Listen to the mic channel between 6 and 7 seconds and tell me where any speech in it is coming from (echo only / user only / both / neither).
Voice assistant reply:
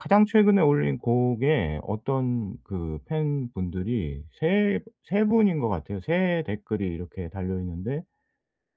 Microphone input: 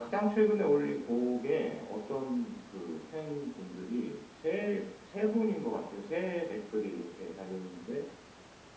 echo only